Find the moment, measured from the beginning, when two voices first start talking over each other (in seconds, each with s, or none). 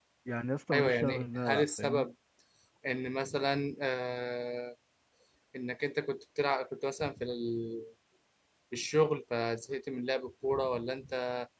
0.7 s